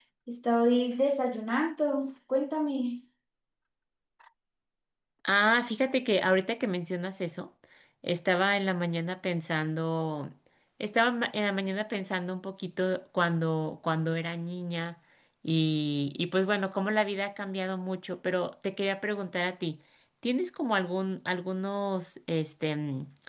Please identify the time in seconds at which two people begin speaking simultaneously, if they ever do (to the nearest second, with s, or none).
none